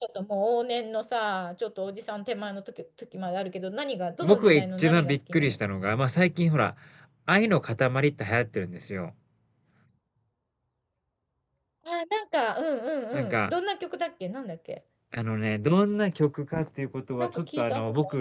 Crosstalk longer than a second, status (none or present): present